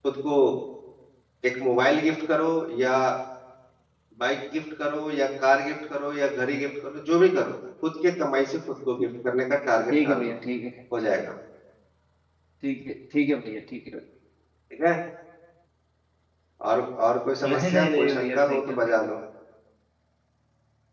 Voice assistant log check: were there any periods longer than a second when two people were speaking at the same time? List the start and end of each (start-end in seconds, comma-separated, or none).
17.5-19.1